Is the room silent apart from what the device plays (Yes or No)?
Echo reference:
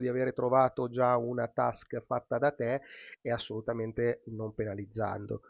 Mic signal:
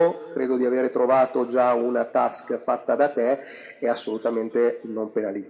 Yes